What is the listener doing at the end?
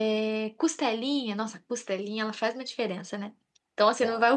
listening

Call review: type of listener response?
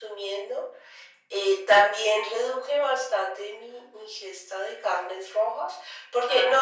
listening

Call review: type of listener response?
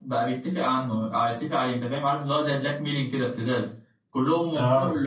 listening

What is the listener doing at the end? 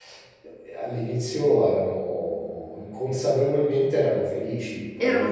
taking over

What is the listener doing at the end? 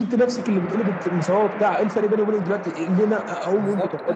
taking over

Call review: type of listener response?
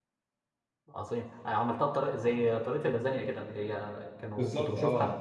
taking over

